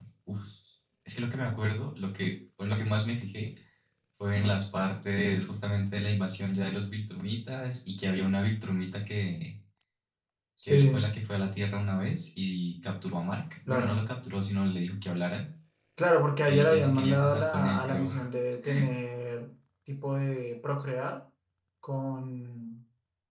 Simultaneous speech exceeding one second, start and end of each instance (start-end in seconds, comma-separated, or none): 16.5-18.1